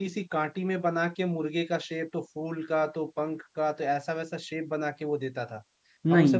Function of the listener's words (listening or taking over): listening